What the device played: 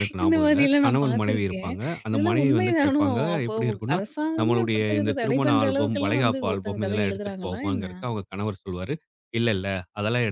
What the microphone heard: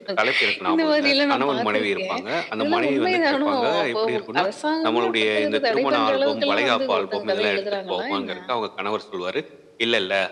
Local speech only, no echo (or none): none